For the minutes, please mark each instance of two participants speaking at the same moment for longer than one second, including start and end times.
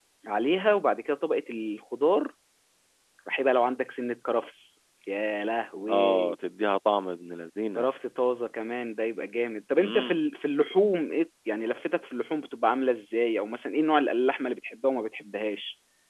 none

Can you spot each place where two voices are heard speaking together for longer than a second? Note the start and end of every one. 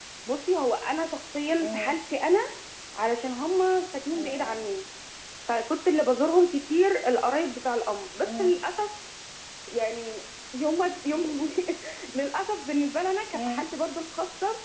none

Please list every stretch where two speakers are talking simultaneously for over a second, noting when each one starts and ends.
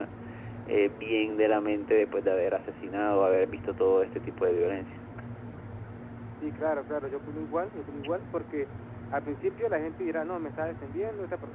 none

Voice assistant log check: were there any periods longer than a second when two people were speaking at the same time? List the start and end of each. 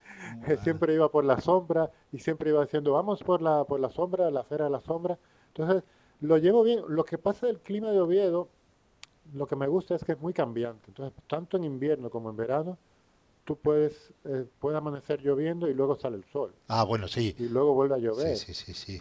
none

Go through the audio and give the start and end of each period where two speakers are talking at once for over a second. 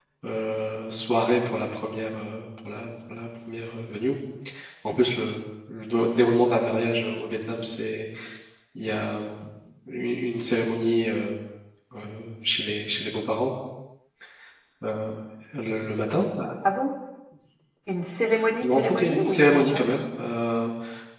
18.6-20.0

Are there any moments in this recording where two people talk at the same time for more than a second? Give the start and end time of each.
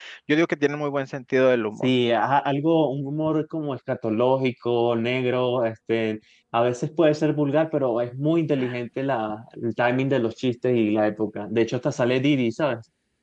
none

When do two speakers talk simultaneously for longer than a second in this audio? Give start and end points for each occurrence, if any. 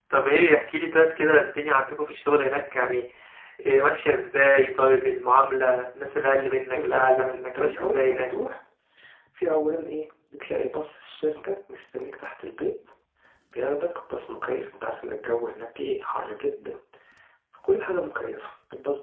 6.7-8.3

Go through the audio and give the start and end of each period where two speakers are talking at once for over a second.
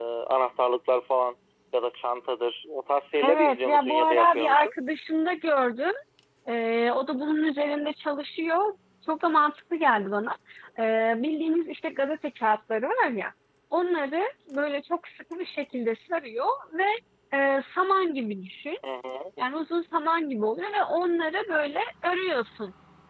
3.2-4.7

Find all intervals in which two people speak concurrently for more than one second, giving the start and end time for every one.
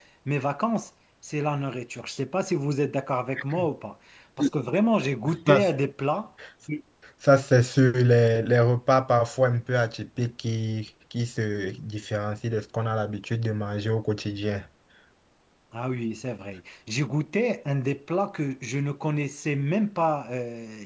none

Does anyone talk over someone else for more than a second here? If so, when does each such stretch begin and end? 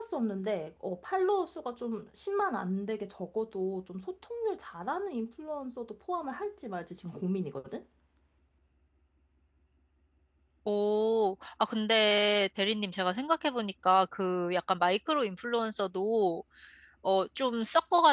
none

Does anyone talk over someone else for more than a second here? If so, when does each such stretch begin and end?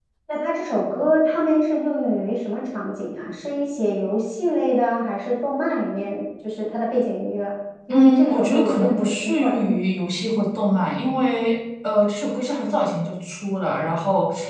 7.9-9.6

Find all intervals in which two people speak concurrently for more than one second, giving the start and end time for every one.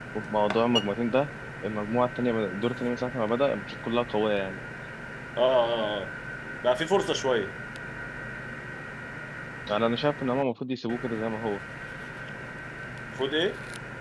none

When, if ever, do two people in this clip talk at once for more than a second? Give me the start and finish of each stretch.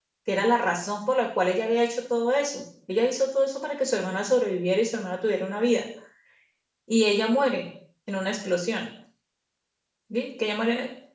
none

